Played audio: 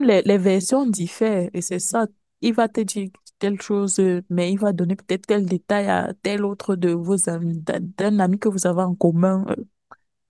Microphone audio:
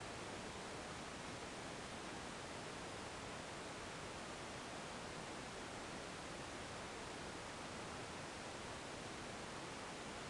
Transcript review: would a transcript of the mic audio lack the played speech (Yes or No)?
Yes